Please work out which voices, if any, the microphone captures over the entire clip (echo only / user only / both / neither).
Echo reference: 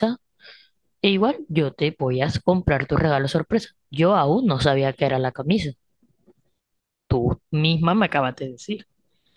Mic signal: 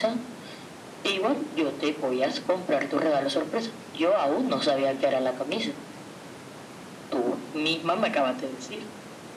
echo only